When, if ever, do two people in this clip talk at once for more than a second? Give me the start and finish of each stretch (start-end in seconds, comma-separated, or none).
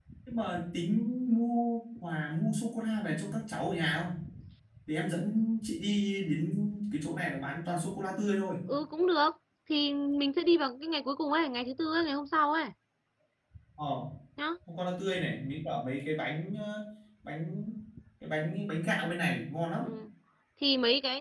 none